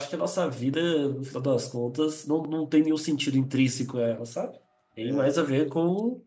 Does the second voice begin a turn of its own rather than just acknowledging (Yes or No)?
No